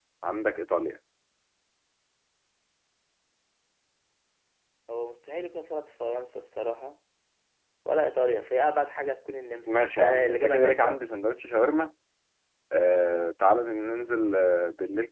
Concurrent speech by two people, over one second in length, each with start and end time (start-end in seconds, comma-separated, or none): 9.7-11.0